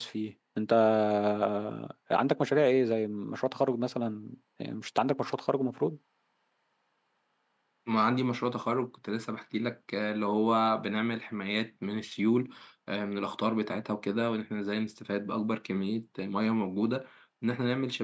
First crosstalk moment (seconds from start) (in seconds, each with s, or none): none